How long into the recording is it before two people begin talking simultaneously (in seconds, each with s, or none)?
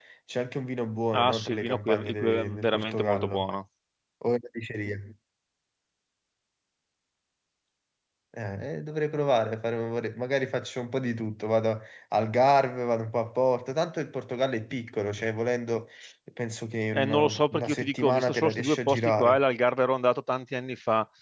1.1 s